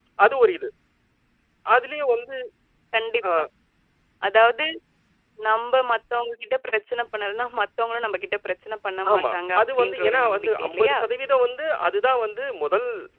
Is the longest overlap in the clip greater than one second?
Yes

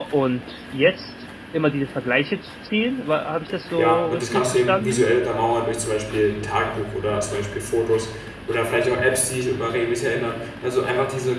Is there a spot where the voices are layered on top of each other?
Yes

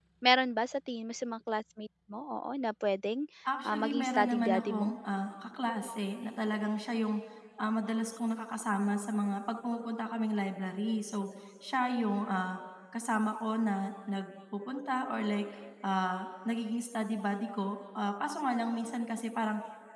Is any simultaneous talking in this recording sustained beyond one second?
Yes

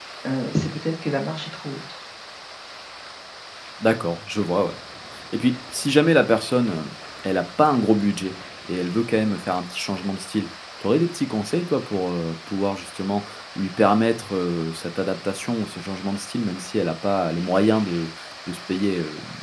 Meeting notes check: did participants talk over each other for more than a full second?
No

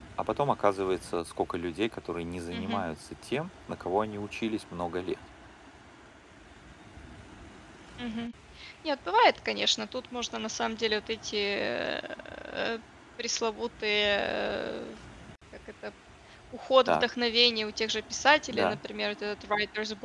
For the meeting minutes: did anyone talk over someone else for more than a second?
No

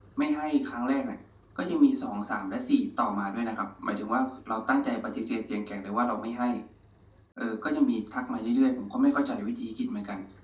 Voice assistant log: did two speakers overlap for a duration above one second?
No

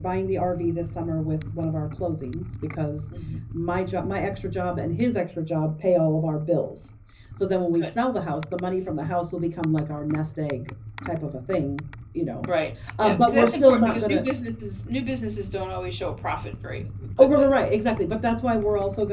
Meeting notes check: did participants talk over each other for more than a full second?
Yes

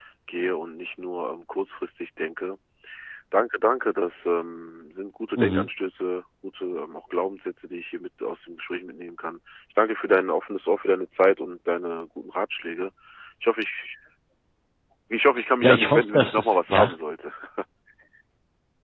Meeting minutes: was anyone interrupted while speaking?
Yes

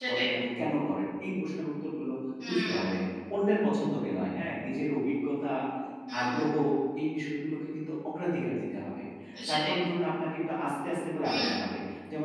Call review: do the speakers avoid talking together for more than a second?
Yes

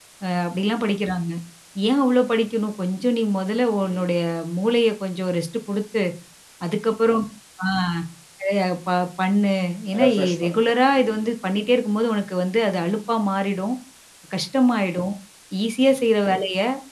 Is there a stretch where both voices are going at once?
Yes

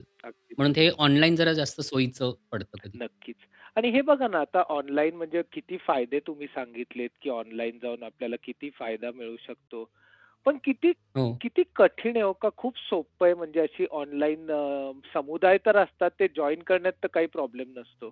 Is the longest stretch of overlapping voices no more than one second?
Yes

